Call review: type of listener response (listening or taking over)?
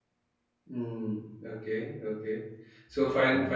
listening